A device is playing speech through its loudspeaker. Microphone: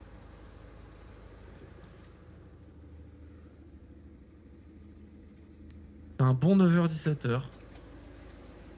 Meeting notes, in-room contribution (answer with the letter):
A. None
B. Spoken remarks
B